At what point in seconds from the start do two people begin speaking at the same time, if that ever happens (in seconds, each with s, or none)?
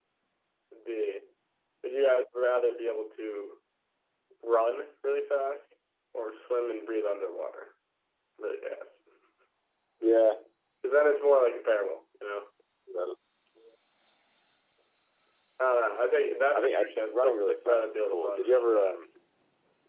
16.5 s